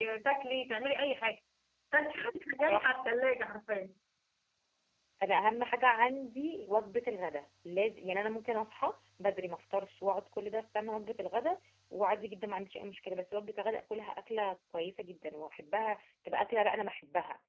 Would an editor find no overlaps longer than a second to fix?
Yes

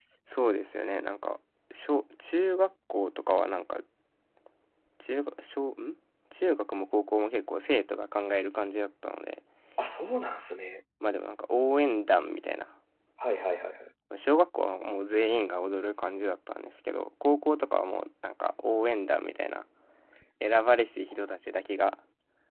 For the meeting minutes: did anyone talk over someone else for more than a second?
No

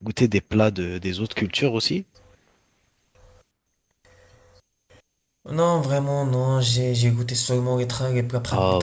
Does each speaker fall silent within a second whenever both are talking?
Yes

